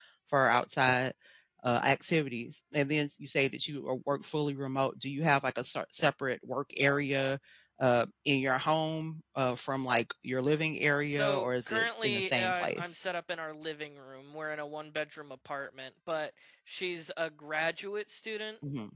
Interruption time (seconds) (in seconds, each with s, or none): 11.1 s